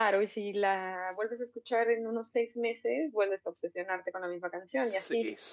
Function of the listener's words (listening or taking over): taking over